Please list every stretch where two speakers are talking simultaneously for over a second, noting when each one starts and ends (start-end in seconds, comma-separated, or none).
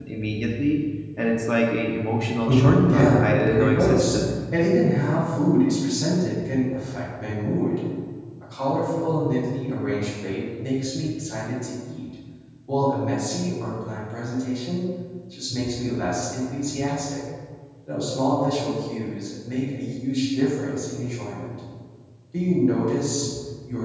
2.5-4.3